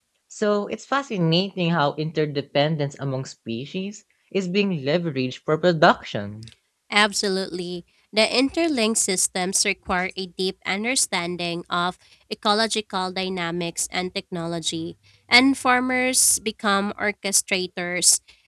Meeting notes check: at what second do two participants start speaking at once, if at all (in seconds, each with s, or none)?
none